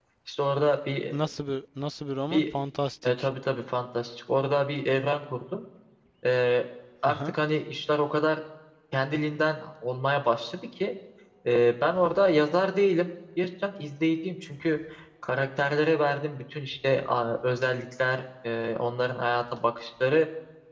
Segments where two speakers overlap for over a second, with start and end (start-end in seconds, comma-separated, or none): none